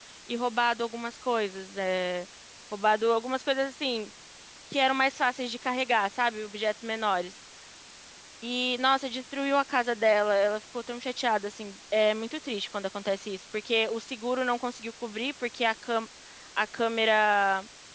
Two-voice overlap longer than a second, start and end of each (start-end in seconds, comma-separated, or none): none